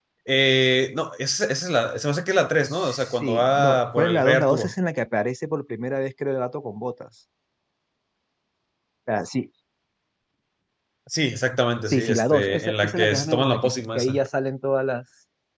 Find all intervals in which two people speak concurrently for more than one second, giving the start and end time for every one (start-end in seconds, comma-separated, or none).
2.7-4.7, 11.8-14.2